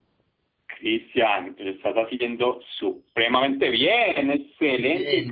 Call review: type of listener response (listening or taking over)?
taking over